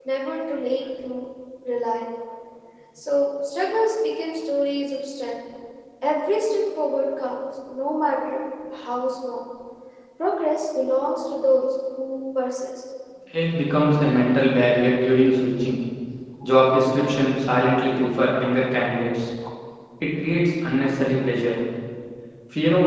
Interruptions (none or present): none